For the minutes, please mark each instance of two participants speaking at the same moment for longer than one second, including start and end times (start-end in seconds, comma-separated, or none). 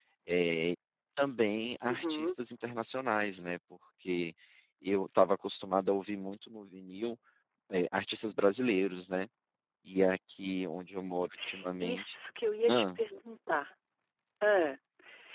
none